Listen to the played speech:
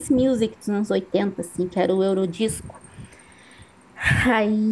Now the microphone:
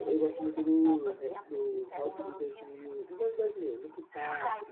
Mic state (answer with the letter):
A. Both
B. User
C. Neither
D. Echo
A